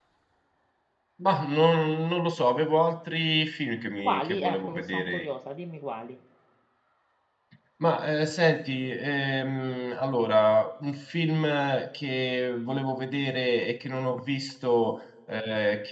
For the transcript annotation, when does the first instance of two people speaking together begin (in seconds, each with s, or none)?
4.0 s